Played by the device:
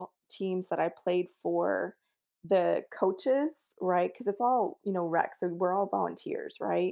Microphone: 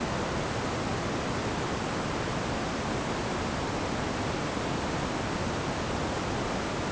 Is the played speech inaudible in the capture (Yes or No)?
Yes